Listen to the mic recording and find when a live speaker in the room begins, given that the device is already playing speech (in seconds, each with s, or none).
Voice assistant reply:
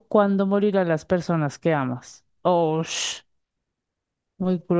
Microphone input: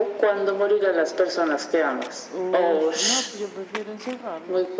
2.3 s